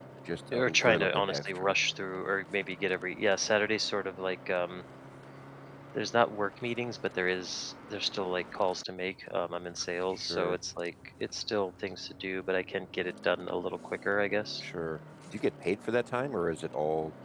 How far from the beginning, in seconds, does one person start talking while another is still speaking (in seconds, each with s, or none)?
0.5 s